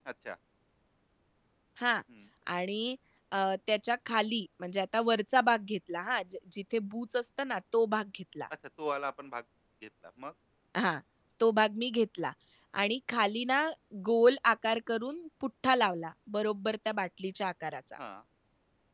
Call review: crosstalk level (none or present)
none